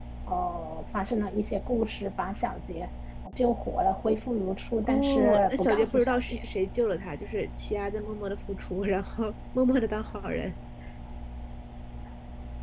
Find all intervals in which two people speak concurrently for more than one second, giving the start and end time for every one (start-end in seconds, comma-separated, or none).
4.8-6.4